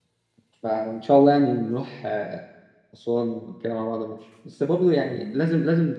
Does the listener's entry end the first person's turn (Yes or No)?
No